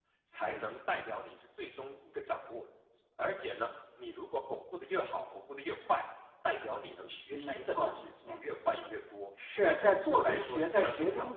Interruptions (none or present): present